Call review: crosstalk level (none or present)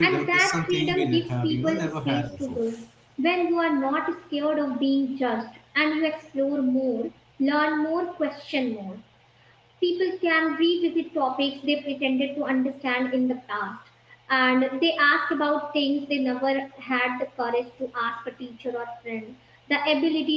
present